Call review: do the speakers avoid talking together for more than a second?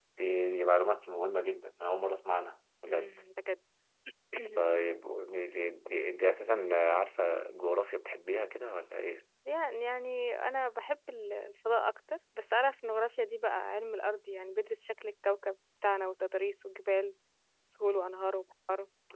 Yes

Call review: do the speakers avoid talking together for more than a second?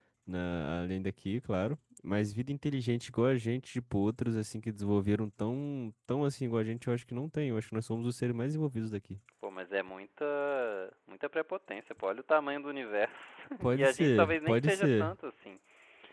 No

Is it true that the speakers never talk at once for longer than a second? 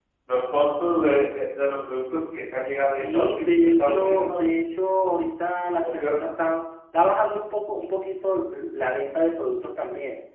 No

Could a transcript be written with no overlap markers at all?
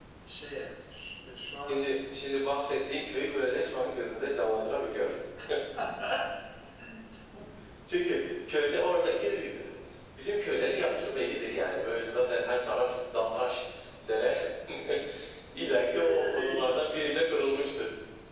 No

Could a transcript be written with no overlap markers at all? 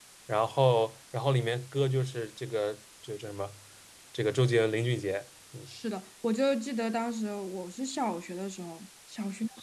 Yes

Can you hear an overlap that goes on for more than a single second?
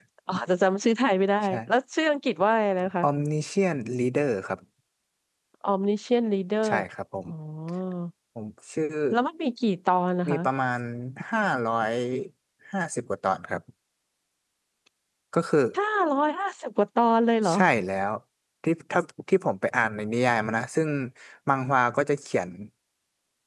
No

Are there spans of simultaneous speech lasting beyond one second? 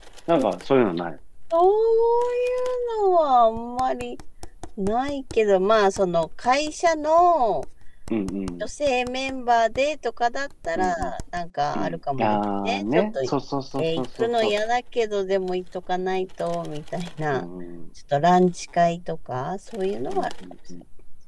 Yes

